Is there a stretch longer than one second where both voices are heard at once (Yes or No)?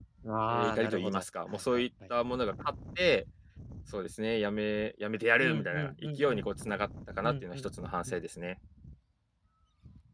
Yes